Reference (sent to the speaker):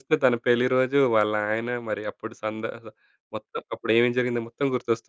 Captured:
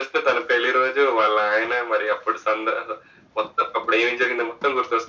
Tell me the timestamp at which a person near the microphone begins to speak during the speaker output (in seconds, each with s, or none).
none